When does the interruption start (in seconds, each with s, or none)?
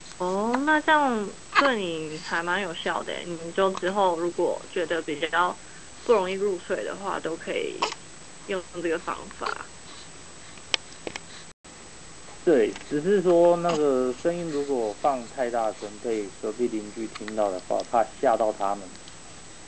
none